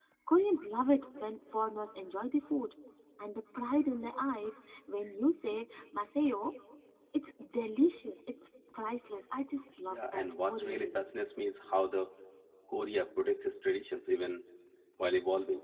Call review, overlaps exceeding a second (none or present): present